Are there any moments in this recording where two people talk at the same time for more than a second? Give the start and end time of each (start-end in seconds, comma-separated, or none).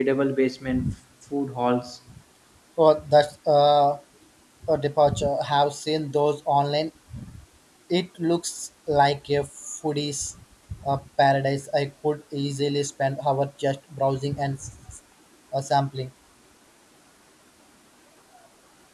none